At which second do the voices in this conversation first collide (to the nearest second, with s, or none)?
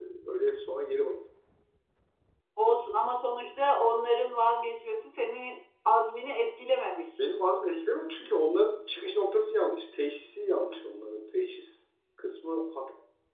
none